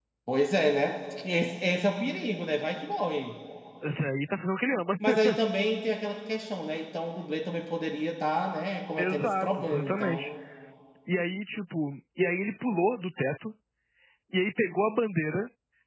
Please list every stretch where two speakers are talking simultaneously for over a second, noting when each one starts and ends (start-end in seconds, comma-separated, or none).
9.0-10.3